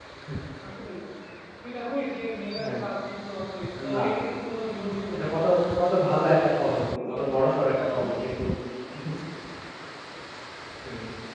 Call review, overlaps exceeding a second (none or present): none